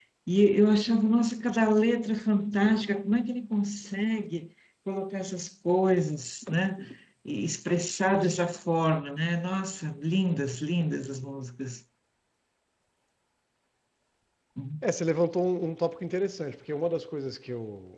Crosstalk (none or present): none